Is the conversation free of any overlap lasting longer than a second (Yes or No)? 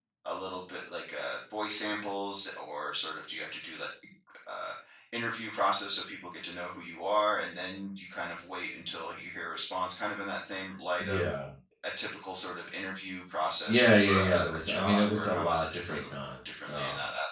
No